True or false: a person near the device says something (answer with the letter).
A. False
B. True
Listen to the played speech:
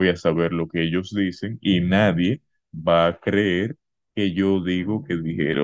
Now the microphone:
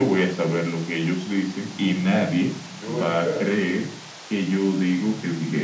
B